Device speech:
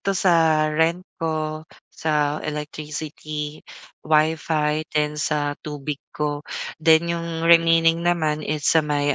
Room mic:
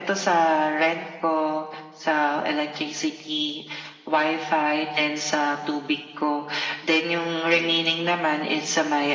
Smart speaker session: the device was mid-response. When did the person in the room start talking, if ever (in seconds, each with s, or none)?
none